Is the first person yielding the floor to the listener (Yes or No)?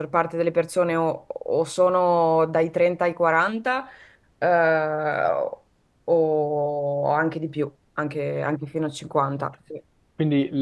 Yes